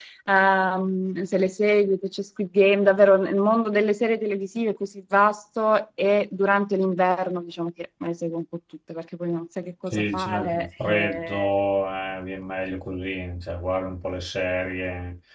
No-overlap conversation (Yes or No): No